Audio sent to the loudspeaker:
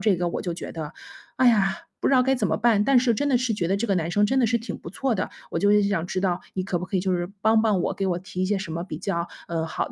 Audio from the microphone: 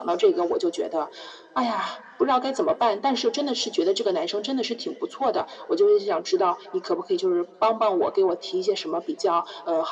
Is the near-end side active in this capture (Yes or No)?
No